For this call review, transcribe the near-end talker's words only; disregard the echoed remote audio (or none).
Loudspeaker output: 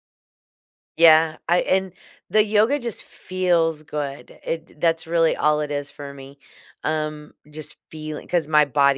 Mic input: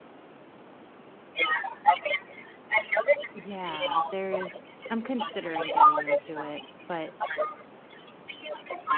Yeah, there is I'm considering getting into it, but